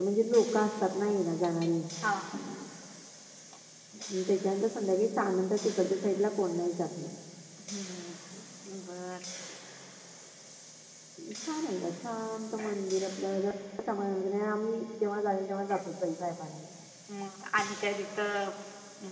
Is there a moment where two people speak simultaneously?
No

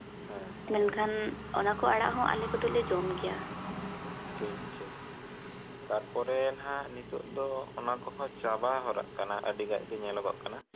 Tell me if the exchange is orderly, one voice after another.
Yes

